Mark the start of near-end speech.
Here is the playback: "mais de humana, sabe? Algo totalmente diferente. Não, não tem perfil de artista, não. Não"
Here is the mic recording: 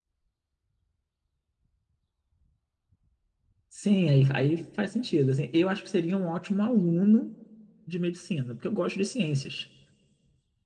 3.7 s

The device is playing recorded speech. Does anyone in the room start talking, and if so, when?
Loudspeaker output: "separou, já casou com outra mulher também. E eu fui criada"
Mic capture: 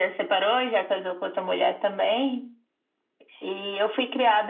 none

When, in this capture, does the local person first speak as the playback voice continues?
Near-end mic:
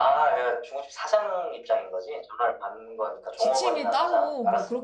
3.4 s

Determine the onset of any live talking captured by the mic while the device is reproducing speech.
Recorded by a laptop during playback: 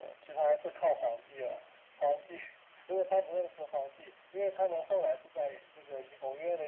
none

